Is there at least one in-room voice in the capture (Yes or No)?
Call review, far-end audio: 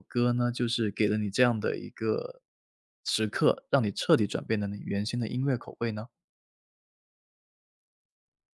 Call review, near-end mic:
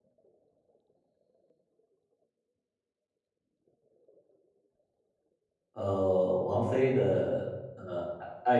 Yes